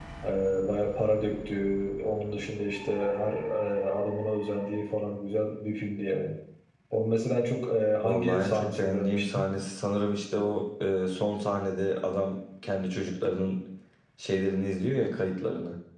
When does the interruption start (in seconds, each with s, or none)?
8.0 s